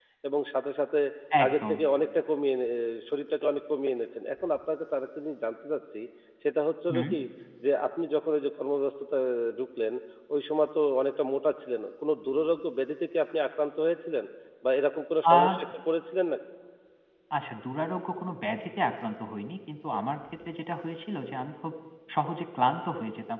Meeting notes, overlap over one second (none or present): none